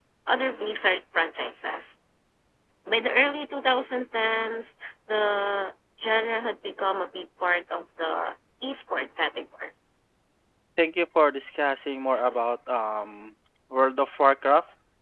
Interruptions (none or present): none